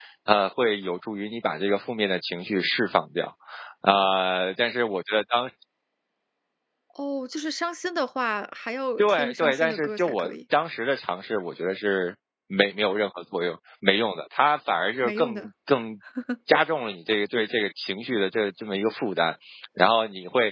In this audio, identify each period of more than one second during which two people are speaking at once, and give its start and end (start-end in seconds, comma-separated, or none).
9.0-10.3